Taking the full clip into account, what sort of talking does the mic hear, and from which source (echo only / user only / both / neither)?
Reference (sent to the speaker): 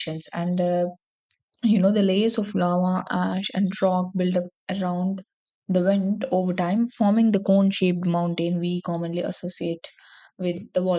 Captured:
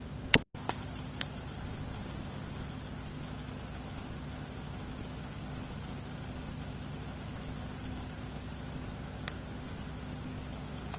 neither